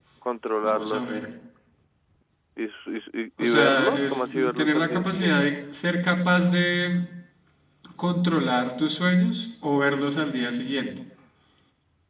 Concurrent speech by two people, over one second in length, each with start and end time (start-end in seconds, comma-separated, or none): 3.4-5.3